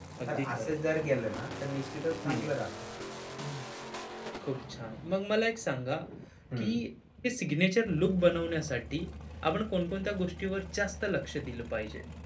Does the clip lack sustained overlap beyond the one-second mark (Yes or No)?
Yes